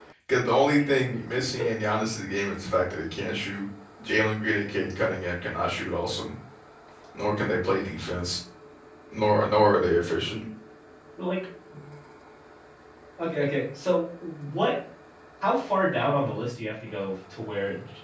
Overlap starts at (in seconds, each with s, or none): none